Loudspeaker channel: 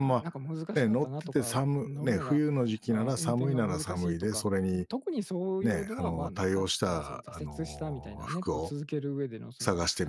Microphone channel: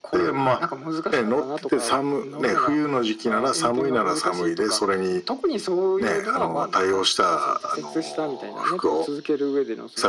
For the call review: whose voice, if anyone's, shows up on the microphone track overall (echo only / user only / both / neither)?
echo only